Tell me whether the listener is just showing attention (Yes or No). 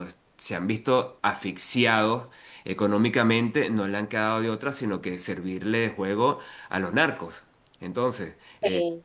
Yes